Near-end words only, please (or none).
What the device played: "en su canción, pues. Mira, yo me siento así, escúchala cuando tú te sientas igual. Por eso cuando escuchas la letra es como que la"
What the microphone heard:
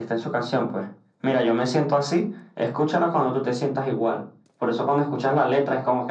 none